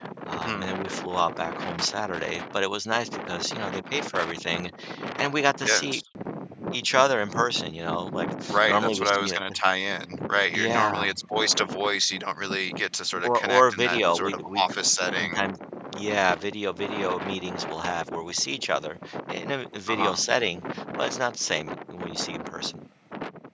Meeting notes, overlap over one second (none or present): present